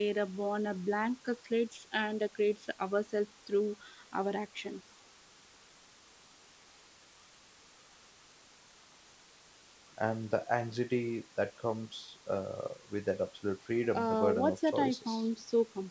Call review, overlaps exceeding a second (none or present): present